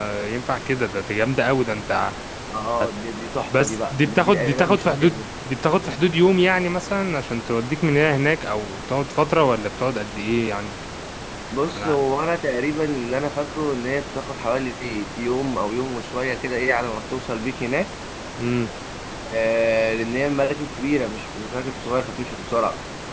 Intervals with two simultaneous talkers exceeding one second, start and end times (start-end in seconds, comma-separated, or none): 3.6-5.2